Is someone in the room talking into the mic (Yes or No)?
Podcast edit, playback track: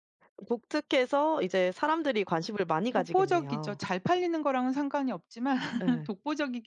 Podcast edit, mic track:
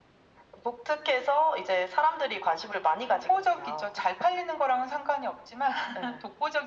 No